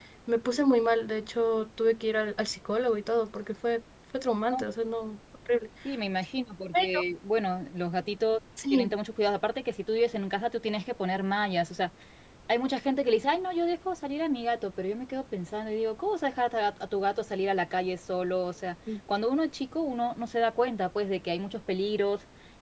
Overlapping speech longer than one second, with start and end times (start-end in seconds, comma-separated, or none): none